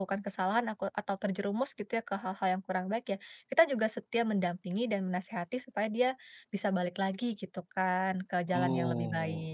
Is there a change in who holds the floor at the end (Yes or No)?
Yes